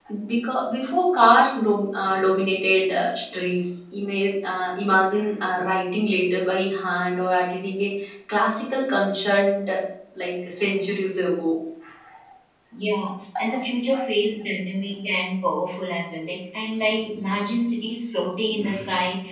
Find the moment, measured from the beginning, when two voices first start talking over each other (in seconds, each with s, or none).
none